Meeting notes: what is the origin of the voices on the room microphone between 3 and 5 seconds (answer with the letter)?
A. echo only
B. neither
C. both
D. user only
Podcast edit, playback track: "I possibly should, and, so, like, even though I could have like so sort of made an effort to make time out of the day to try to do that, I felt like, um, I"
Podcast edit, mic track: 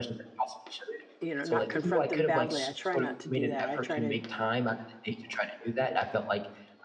C